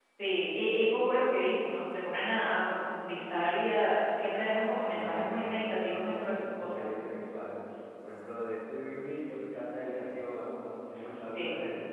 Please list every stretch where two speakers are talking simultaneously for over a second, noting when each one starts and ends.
4.9-6.8

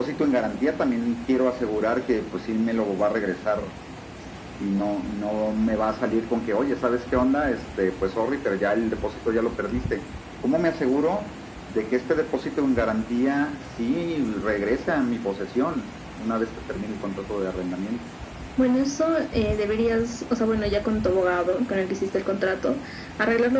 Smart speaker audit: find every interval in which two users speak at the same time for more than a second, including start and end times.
none

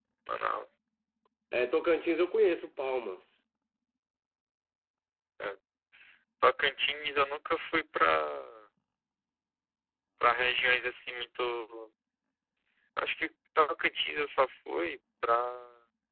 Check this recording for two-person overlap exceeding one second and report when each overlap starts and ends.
none

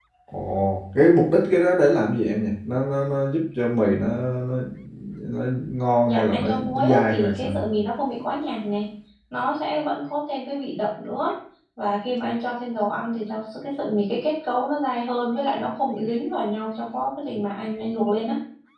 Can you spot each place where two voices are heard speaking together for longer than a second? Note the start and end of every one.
6.0-7.5

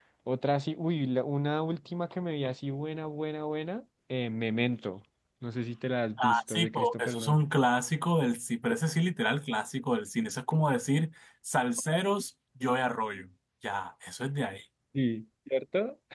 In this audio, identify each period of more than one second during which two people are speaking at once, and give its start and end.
6.2-7.4

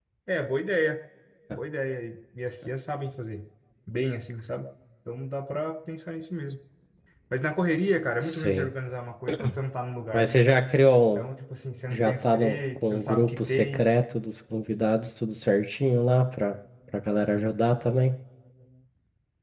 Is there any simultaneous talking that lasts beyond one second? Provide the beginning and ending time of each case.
12.0-13.9

